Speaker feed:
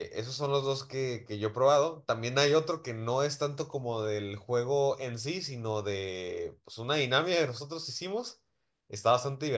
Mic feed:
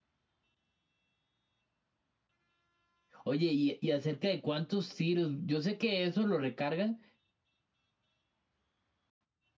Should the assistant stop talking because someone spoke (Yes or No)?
Yes